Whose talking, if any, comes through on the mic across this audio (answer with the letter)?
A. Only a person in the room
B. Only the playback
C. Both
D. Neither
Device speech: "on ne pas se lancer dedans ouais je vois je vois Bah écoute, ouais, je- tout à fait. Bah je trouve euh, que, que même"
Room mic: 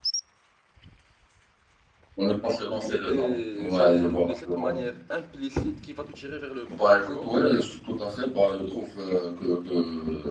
C